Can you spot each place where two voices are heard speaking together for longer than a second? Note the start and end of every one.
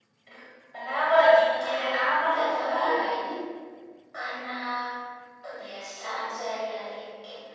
1.6-2.9

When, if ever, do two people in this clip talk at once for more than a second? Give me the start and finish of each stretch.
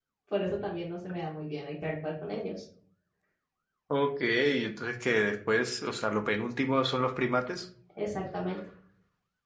none

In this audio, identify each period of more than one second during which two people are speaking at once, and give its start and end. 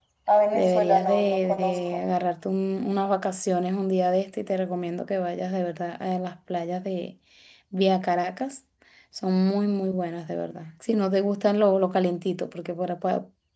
0.5-2.0

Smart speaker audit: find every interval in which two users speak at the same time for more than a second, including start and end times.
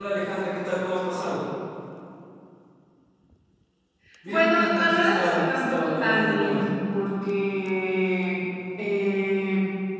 4.2-6.6

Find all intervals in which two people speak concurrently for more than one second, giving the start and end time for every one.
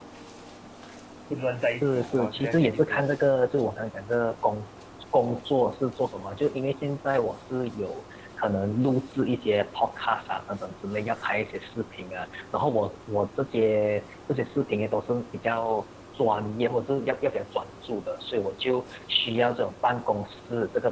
1.7-3.1

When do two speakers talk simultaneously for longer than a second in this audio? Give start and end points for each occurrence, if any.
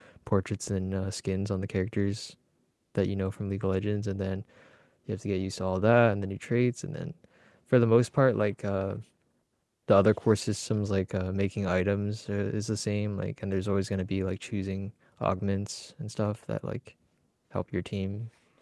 none

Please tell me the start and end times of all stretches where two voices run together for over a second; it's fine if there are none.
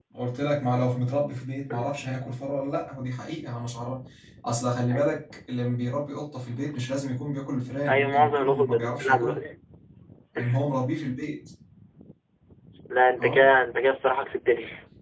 7.9-9.4

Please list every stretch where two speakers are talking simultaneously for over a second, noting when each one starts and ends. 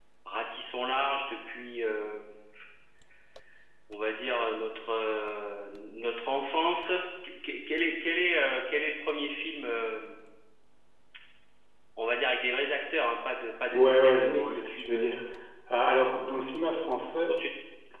13.7-15.1

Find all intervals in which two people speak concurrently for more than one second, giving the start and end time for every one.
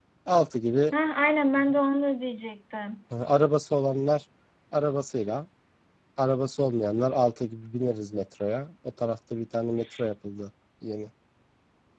none

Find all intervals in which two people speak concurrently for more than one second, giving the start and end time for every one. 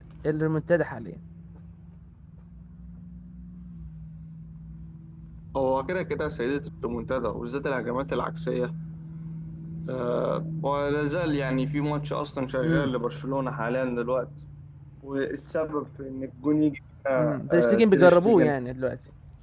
17.2-18.5

